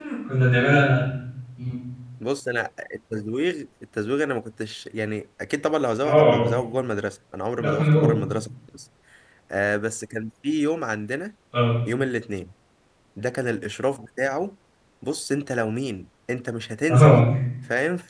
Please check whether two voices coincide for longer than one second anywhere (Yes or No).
No